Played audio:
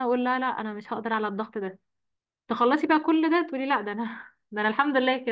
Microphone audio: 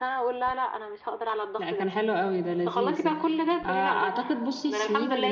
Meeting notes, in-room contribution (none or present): present